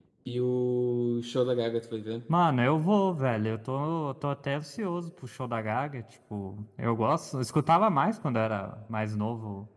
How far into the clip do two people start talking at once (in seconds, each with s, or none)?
none